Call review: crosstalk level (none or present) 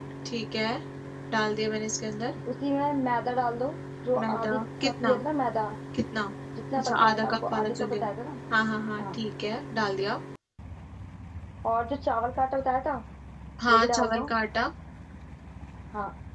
present